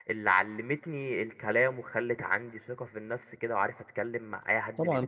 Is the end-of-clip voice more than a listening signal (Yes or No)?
Yes